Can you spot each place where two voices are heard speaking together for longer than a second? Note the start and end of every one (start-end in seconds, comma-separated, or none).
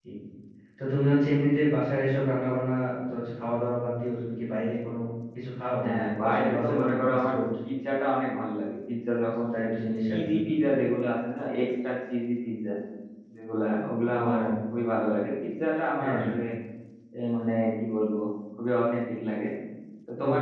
5.8-7.4